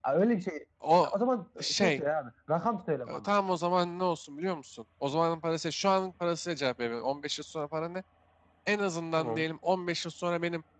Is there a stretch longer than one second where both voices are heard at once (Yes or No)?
No